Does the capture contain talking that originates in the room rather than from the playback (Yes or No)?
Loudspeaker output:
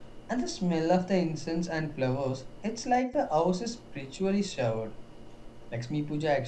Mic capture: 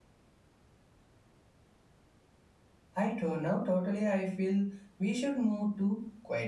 Yes